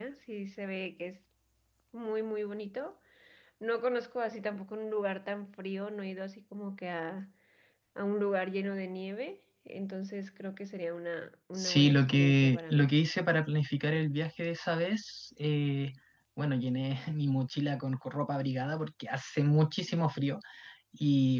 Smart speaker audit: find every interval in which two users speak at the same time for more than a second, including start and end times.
11.6-12.9

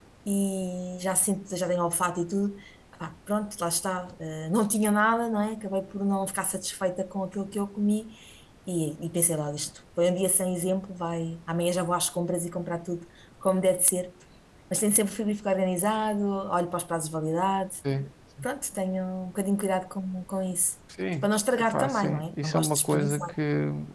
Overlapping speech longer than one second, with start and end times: 21.2-23.3

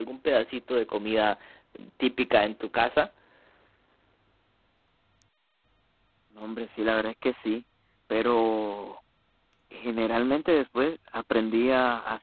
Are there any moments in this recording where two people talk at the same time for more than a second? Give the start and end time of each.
none

